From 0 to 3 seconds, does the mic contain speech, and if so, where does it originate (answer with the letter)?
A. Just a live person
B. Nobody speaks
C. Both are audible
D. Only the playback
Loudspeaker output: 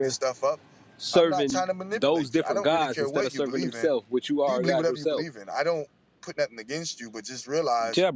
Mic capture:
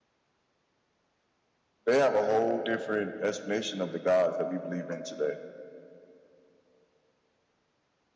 A